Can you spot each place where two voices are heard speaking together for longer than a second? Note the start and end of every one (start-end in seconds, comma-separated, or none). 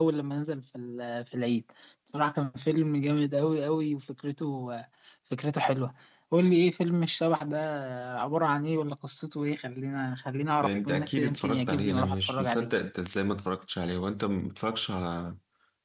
10.6-12.7